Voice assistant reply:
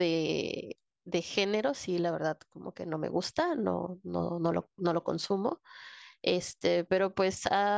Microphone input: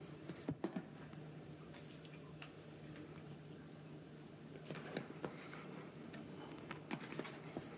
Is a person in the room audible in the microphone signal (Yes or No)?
No